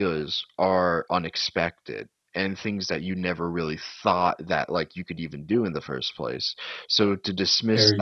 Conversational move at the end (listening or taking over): listening